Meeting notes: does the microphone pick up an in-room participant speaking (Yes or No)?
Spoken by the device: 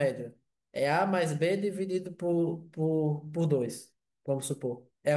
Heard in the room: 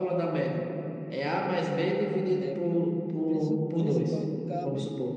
Yes